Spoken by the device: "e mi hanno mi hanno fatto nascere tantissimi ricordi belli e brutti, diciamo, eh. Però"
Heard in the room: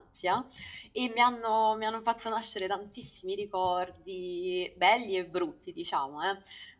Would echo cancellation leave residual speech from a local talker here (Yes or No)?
No